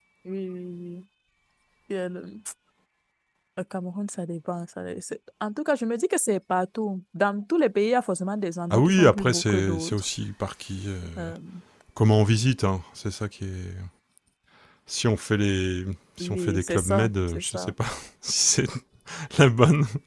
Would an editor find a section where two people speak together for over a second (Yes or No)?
Yes